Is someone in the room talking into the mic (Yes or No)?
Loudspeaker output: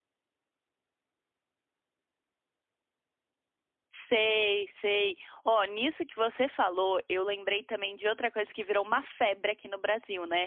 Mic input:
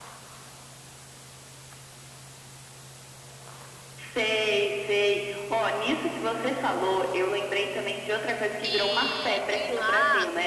Yes